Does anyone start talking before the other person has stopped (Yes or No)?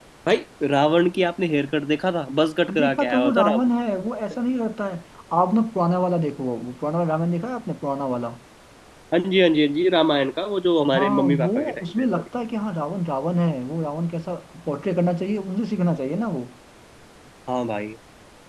Yes